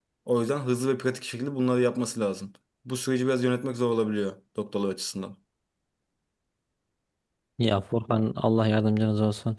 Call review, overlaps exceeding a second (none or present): none